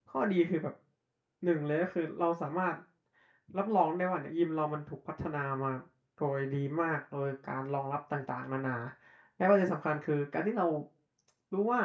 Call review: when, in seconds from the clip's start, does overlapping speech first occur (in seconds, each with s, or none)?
none